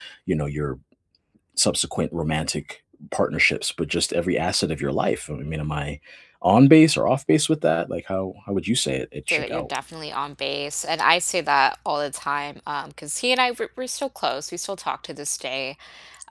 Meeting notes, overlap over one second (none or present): none